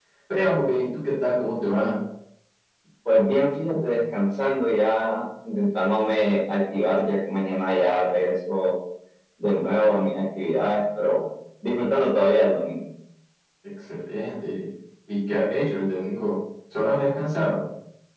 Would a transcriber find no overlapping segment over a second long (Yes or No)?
Yes